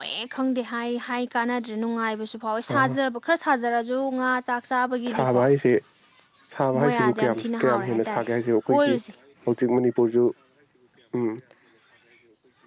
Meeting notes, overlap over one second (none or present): present